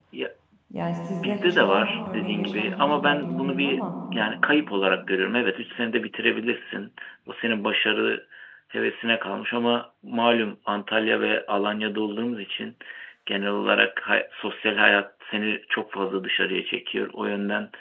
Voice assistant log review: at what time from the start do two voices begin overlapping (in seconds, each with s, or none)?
1.2 s